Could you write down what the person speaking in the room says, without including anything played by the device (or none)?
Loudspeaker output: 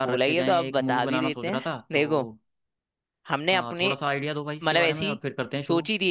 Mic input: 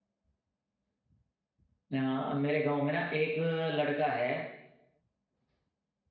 अ, मेरे गांव में ना एक लड़का है